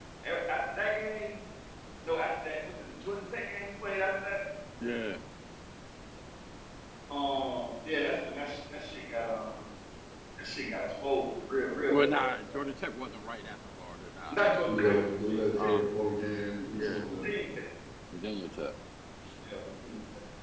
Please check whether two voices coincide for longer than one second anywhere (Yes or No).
Yes